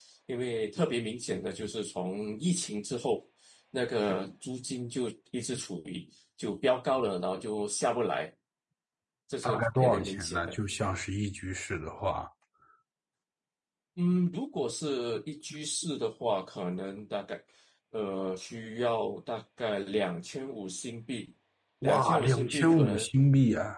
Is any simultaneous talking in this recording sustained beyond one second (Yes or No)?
Yes